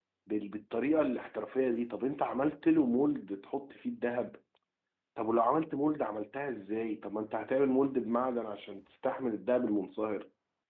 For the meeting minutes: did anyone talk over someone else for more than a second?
No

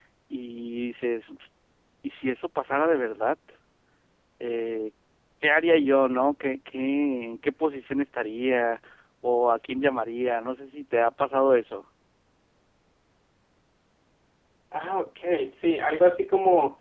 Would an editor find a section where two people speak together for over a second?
No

